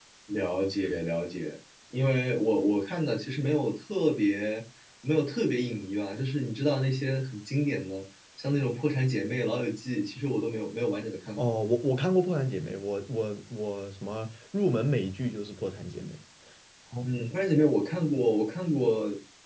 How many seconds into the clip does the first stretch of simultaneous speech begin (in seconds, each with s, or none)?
none